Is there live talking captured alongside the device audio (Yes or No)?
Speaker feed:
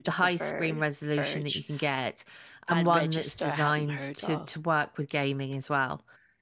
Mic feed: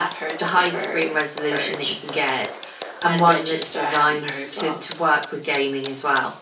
No